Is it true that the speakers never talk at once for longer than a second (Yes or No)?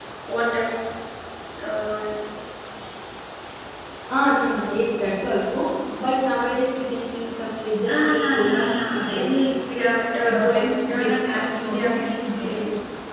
No